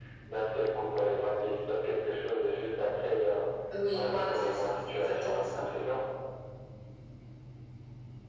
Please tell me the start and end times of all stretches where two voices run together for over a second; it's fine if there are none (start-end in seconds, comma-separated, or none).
3.9-5.6